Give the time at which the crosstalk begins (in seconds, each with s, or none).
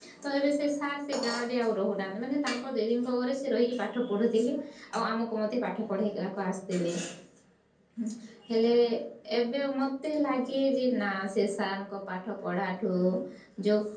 none